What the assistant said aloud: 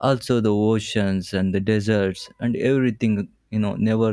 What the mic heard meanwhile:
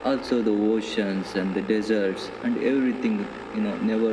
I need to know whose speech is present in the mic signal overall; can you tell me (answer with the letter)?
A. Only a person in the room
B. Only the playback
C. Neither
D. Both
B